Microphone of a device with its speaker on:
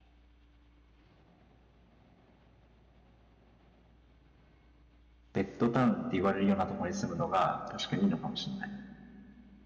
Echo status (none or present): none